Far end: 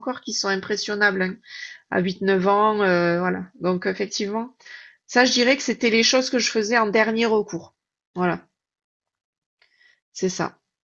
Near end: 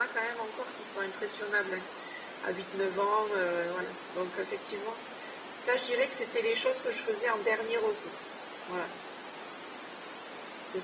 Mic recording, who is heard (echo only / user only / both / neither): echo only